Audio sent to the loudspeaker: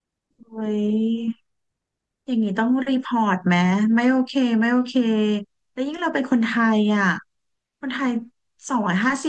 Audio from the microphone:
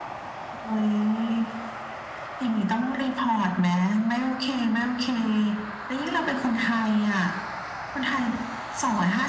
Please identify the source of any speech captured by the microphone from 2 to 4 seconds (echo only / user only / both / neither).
echo only